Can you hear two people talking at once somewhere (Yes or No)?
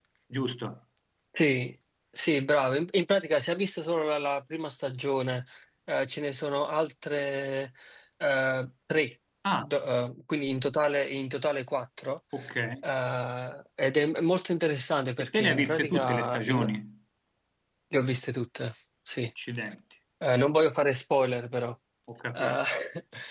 Yes